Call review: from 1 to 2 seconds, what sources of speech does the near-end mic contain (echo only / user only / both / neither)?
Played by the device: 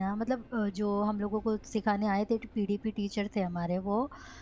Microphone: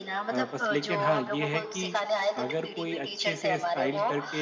both